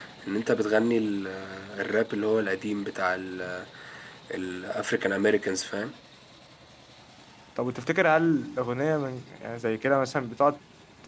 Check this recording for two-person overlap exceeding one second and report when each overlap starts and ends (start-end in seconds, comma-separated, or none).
none